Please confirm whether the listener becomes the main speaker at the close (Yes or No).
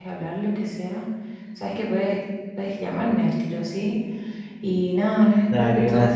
No